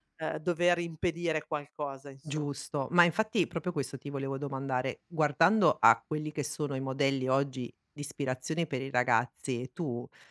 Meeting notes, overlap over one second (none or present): none